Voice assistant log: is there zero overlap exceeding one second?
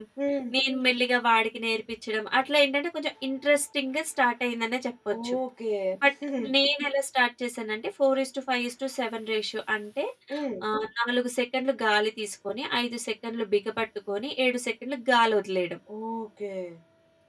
Yes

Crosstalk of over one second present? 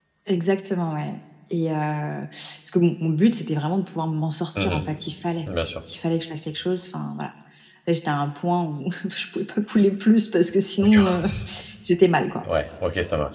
No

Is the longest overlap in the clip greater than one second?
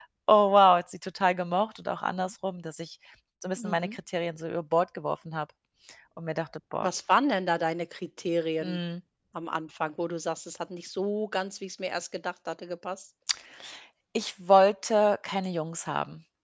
No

